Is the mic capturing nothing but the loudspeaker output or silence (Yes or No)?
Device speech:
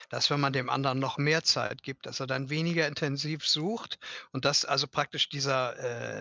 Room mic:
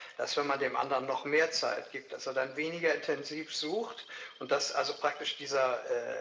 Yes